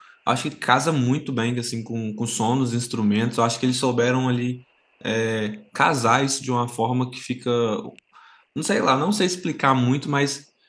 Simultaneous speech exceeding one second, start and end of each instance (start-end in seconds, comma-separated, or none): none